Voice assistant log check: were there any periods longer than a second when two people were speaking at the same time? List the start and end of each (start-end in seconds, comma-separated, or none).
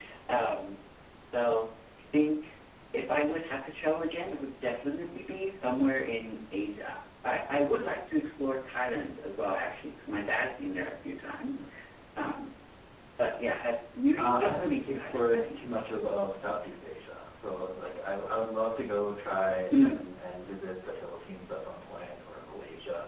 14.2-15.6